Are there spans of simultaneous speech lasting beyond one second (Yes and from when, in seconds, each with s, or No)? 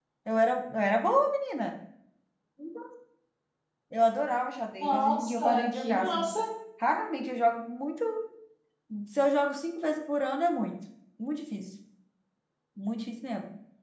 Yes, from 4.8 s